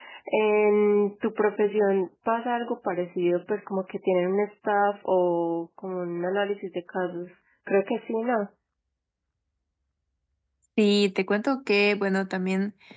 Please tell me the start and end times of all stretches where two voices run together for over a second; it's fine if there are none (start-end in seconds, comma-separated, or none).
none